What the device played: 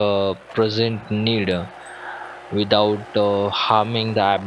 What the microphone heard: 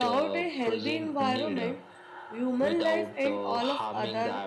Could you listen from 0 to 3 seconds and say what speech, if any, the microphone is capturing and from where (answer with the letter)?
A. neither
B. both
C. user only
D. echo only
B